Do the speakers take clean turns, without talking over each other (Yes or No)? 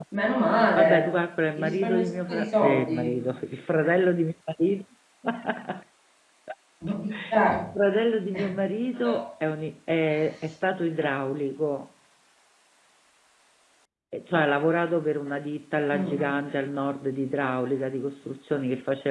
No